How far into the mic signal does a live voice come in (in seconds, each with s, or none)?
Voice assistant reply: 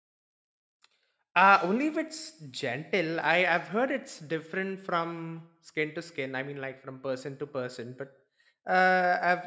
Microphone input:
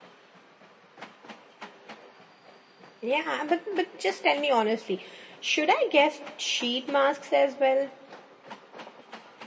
3.0 s